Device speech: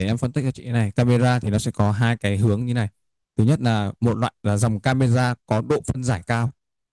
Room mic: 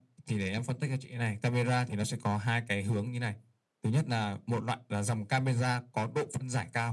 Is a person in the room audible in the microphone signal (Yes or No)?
No